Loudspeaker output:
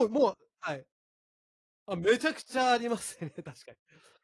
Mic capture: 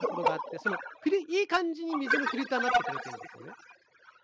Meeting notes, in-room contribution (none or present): present